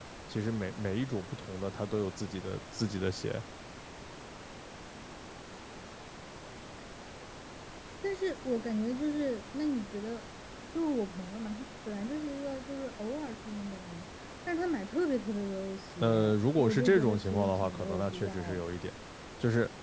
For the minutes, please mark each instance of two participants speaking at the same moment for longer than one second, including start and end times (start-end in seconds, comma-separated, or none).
16.0-18.7